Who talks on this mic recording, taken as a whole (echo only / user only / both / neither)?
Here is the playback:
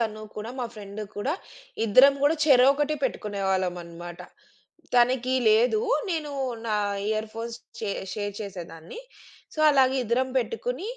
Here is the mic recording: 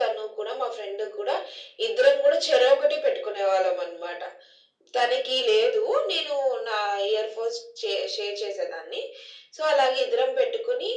echo only